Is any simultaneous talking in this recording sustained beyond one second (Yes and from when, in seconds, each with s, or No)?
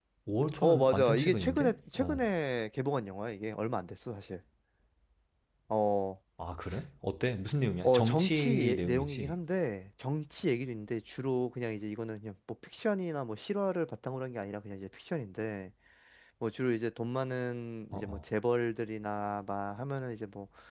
Yes, from 0.6 s